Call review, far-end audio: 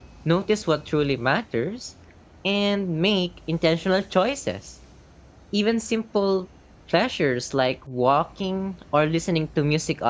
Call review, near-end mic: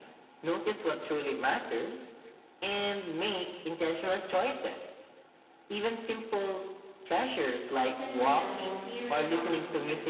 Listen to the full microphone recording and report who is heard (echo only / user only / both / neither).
both